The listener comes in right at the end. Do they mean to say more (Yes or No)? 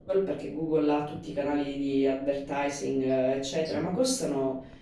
No